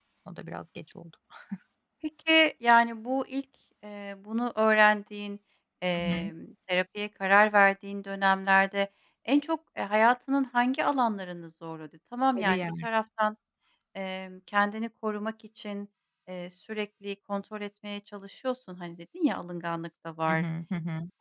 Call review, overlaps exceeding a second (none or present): none